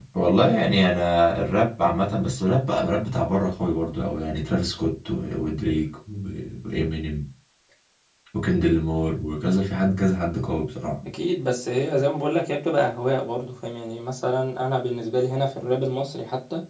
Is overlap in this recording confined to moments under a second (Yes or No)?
Yes